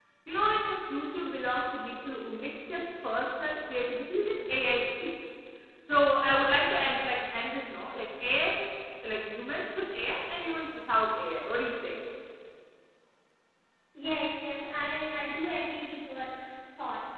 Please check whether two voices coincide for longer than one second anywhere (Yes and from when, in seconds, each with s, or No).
No